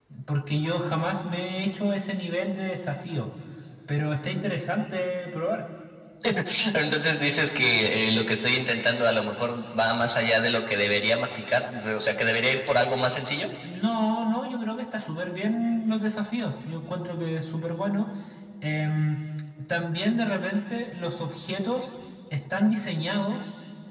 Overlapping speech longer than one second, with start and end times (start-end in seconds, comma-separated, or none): none